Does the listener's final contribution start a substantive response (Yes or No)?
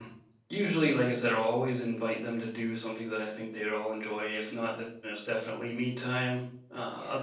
No